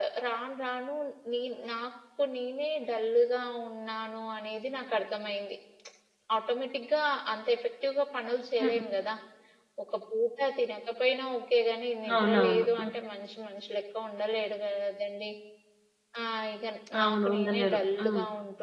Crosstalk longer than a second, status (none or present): present